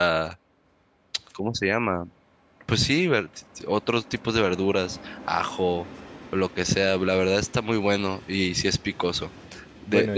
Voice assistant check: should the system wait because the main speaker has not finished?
Yes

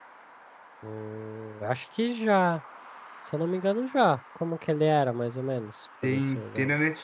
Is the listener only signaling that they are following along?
No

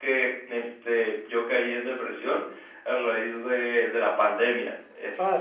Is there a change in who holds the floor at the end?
Yes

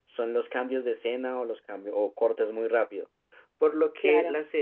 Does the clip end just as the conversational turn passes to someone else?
No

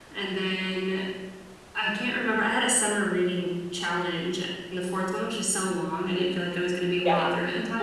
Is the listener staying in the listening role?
No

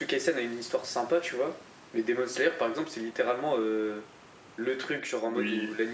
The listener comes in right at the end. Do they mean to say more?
No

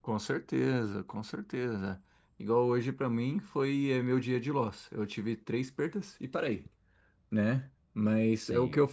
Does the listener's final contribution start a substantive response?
No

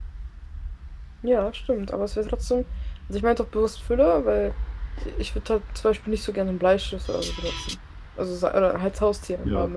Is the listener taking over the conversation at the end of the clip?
Yes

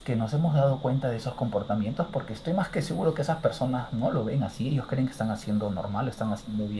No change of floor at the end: Yes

